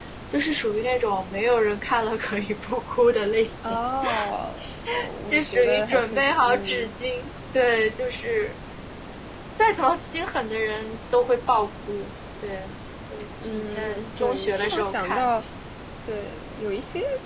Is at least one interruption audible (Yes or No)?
Yes